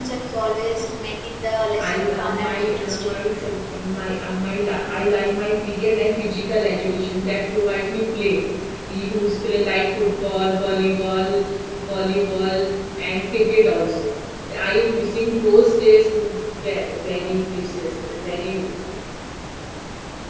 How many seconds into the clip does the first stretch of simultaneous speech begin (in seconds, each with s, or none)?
1.8 s